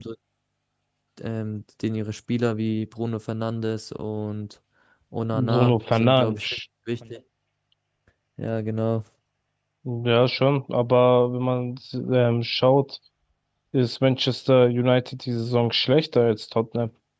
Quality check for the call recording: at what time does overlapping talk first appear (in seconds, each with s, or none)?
5.3 s